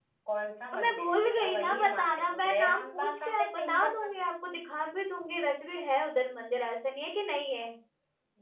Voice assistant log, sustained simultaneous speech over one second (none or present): present